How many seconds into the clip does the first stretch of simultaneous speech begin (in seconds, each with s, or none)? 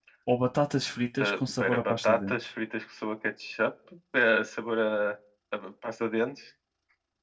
1.2 s